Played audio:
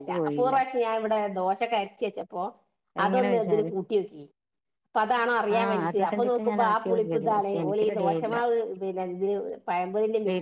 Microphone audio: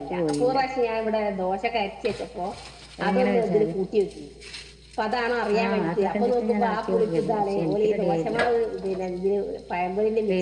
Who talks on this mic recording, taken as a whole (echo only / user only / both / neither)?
echo only